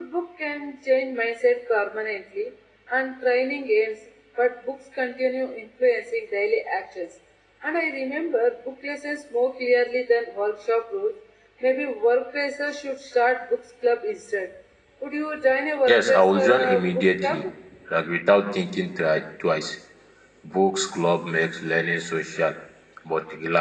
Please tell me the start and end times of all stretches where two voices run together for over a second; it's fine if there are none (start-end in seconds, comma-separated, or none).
15.9-17.5